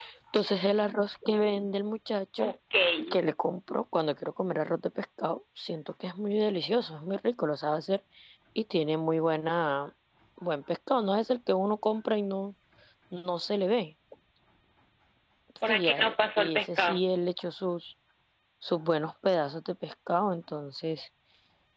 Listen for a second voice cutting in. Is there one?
Yes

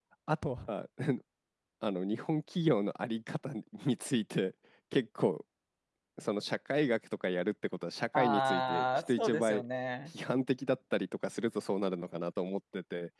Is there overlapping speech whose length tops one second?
Yes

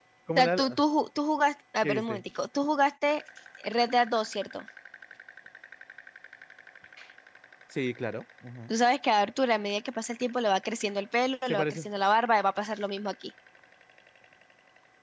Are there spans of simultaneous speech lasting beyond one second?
No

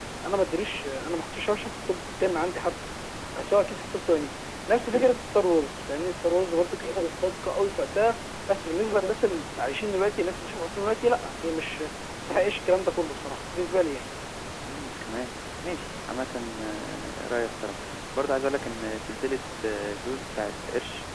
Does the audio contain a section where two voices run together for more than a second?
No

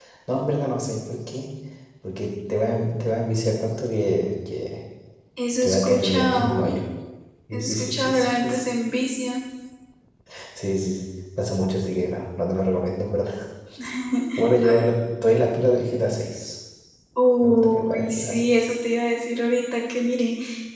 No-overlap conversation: No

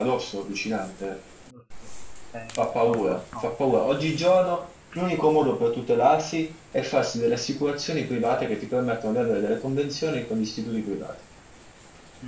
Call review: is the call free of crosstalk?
No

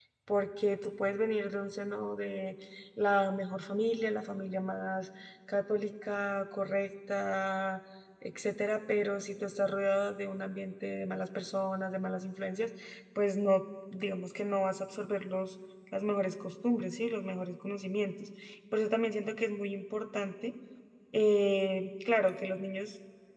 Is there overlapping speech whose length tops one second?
No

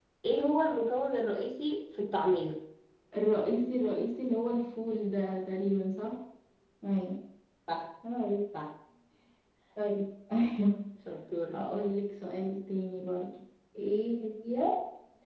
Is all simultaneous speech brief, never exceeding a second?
Yes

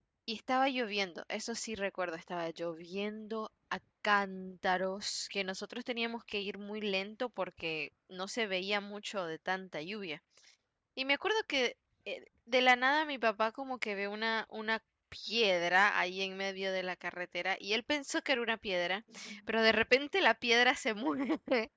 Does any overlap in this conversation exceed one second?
No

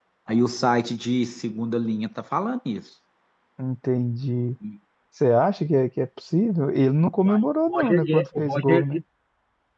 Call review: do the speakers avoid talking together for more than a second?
No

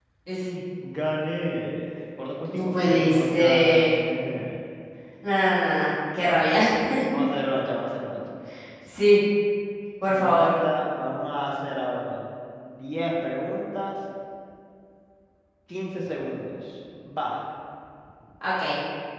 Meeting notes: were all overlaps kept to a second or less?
No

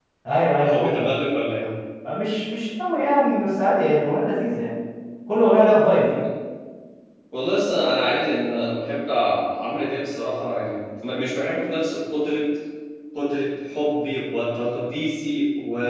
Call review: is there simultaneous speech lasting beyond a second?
No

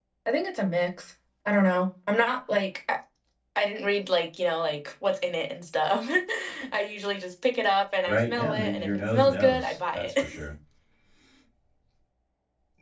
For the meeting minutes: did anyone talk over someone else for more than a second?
Yes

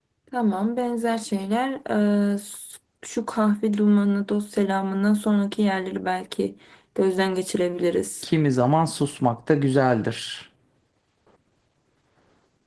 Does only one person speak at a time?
Yes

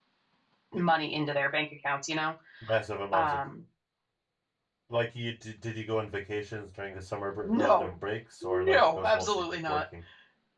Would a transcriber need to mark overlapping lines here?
Yes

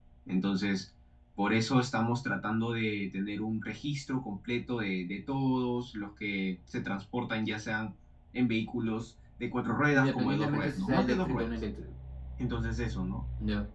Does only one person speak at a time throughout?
No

